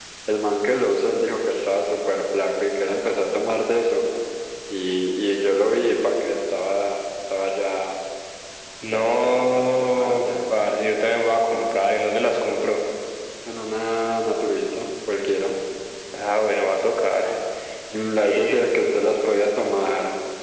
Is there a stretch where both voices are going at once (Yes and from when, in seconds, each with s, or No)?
Yes, from 8.9 s